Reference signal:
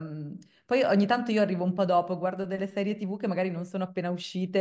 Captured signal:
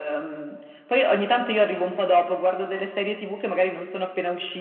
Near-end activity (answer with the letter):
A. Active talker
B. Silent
B